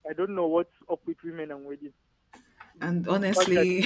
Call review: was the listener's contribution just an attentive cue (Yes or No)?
Yes